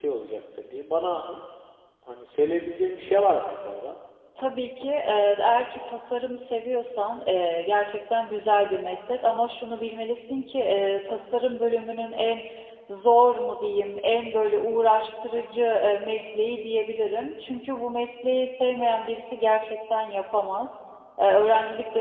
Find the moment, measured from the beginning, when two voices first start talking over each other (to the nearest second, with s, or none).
none